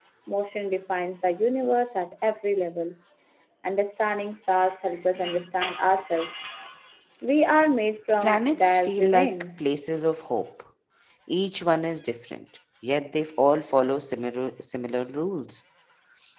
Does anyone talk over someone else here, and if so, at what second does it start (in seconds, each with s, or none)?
8.2 s